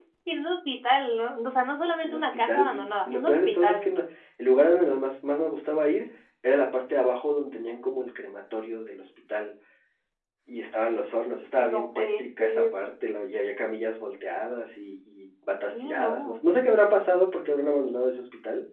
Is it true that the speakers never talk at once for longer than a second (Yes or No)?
No